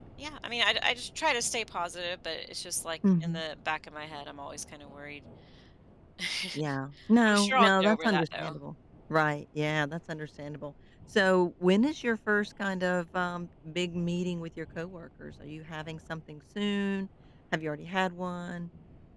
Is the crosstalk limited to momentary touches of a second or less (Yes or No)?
No